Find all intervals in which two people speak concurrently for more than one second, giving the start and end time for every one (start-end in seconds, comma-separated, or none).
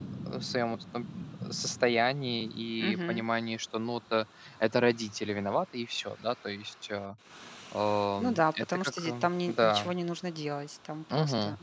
8.2-9.9